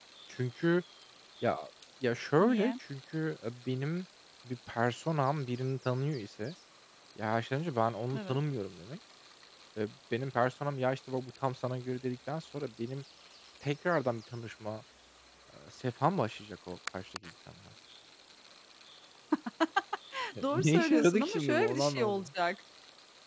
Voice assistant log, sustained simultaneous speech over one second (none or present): present